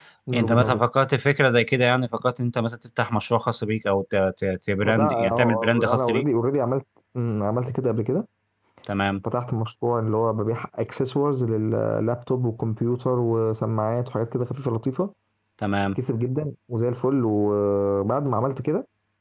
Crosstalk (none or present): present